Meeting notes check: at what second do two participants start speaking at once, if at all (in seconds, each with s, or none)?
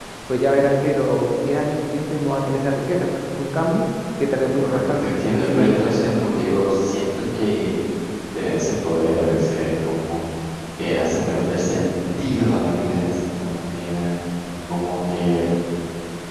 4.6 s